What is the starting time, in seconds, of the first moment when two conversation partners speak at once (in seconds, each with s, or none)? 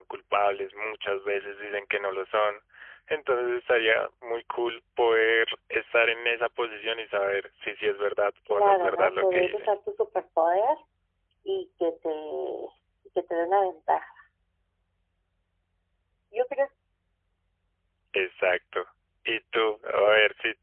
8.5 s